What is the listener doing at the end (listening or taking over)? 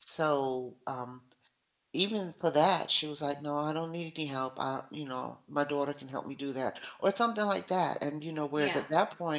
listening